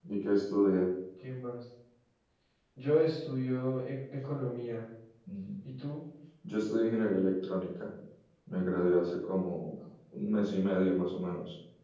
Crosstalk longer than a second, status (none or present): none